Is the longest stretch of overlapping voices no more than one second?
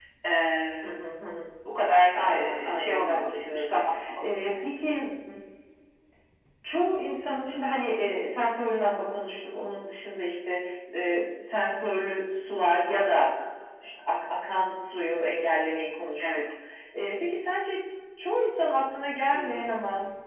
No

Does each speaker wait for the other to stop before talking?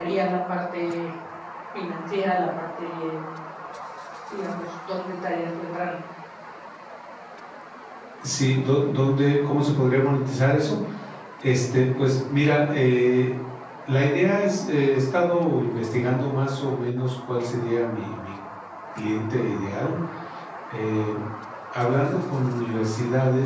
Yes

